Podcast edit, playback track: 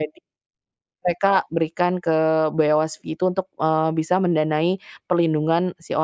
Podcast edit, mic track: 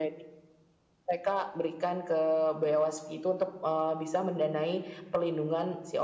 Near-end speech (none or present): none